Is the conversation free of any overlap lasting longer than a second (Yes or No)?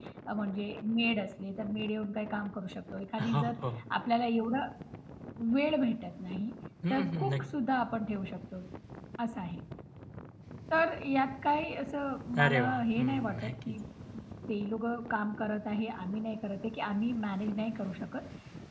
No